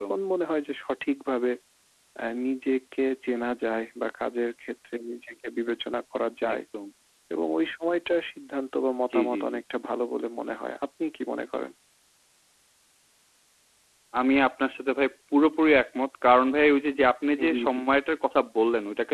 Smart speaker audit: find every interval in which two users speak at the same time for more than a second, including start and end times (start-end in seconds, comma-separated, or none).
none